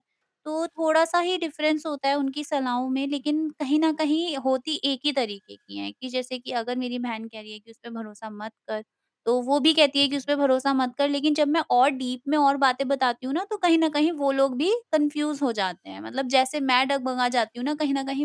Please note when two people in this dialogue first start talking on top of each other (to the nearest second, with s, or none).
none